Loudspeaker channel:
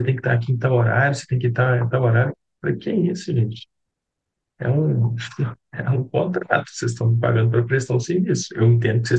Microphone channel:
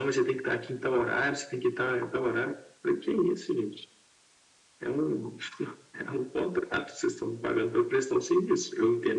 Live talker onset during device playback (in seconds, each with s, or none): none